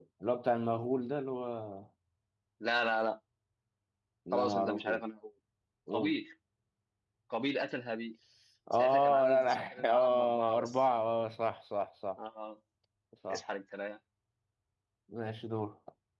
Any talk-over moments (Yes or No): Yes